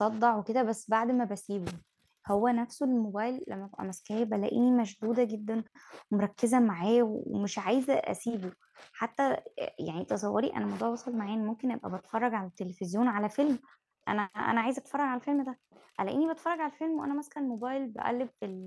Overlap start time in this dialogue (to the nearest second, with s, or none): none